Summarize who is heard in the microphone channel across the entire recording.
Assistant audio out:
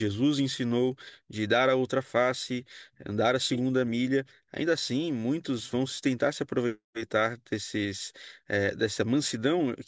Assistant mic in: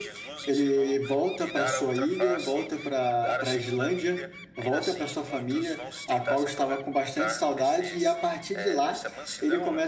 both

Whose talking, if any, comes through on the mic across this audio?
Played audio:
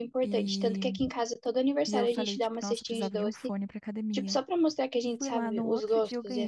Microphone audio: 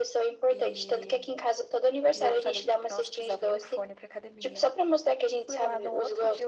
echo only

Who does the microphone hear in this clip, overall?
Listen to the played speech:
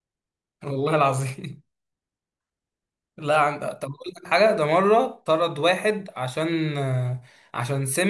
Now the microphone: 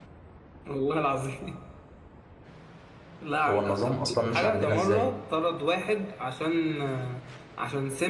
both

